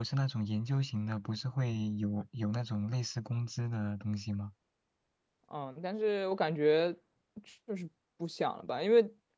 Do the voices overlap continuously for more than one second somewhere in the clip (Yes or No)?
No